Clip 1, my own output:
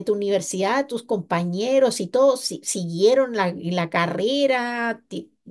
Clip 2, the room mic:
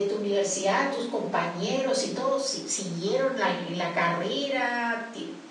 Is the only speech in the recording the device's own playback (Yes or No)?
No